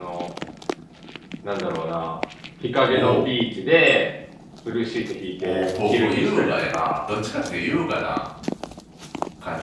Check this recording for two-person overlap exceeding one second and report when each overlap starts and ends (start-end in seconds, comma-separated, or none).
5.4-6.9